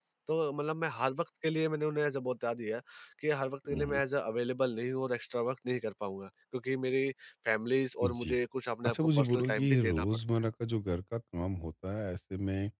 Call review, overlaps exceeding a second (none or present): present